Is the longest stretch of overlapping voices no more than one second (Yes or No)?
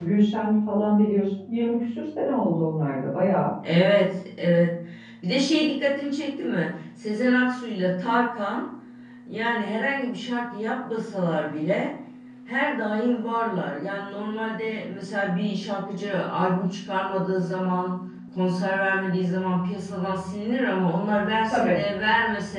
Yes